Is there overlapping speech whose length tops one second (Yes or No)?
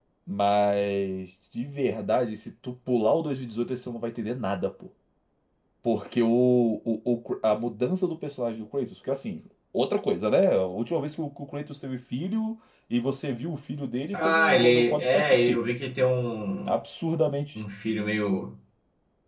Yes